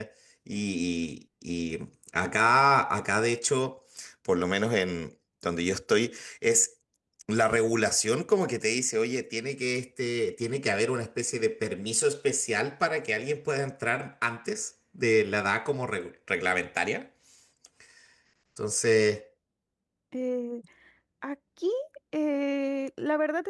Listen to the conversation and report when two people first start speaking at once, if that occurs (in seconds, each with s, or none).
none